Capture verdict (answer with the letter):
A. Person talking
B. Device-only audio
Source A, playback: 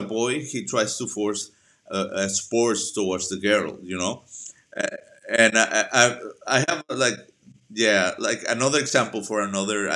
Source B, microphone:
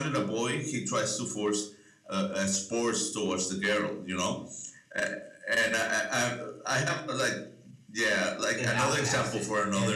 A